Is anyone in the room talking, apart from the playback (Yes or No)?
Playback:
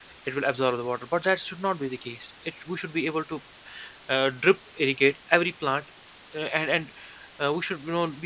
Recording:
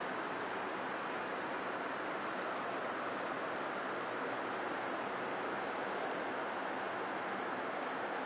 No